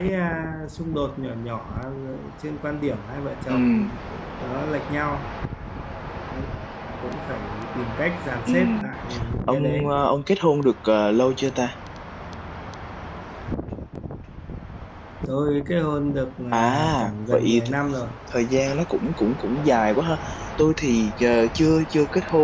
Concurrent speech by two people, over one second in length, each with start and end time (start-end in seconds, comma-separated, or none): 16.5-17.7